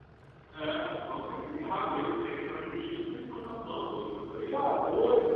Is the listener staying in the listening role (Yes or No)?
No